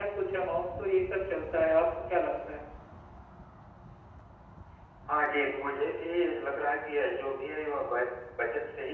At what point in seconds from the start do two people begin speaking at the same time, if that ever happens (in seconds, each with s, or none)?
none